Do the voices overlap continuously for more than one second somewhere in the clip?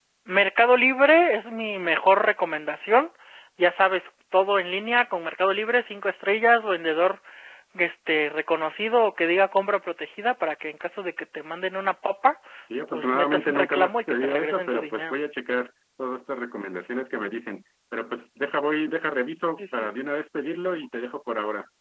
Yes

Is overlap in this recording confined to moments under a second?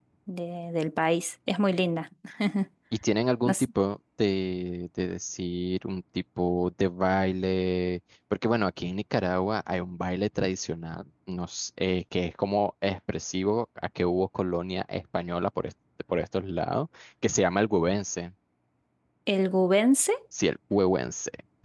Yes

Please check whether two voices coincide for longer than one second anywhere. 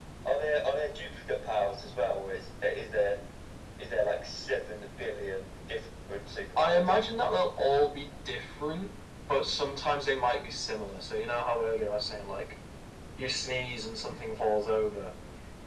No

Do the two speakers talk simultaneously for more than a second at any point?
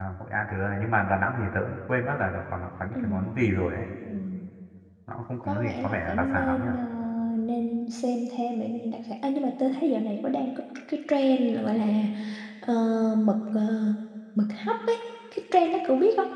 Yes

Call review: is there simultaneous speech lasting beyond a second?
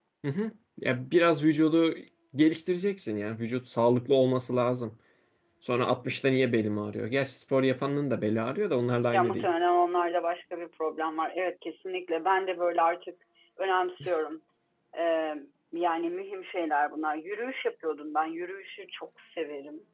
No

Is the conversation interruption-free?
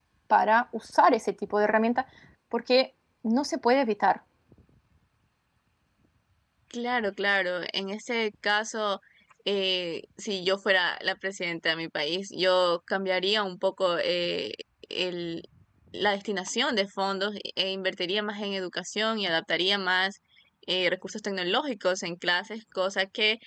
Yes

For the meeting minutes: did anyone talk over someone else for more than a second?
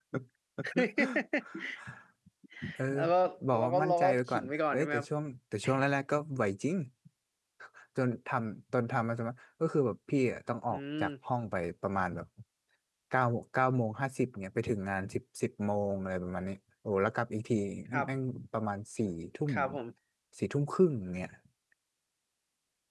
Yes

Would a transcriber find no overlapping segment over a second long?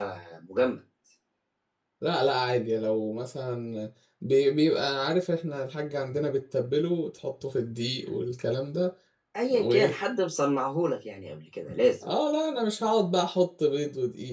Yes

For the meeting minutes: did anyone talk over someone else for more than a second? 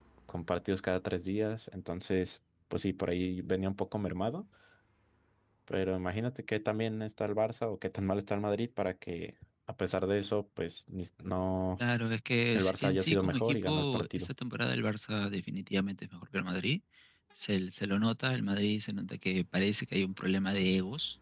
Yes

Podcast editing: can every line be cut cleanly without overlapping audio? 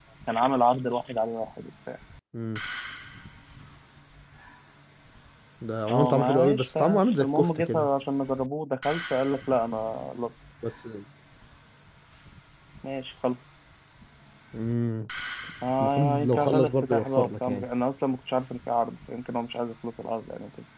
No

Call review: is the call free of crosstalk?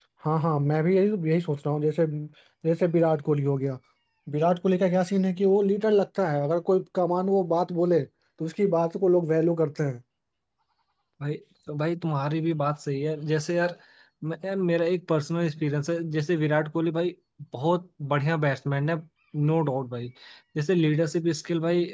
Yes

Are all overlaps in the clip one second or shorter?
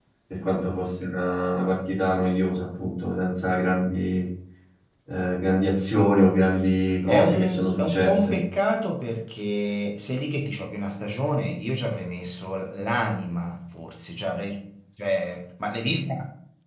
No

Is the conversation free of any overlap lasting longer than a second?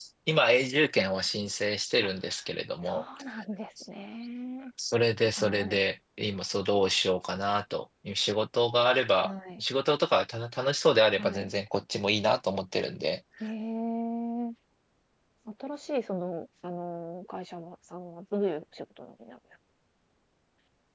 Yes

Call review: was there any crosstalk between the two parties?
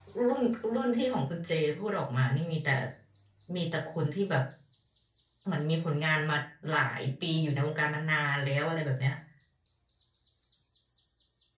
No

